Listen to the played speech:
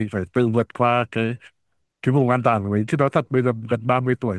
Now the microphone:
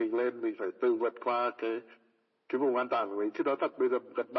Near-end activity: none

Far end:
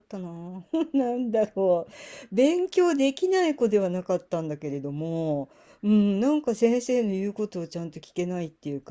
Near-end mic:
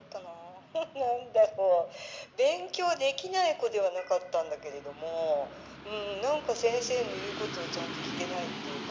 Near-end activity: none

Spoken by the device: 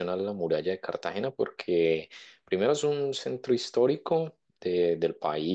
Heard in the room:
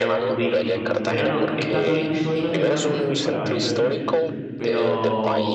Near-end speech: present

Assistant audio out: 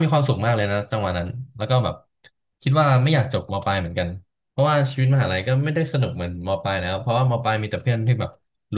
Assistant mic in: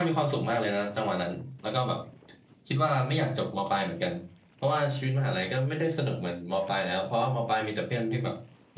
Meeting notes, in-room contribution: none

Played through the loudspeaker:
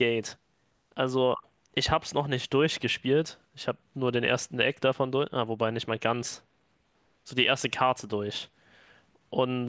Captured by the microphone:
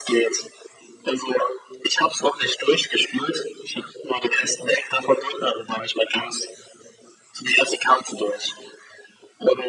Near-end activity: none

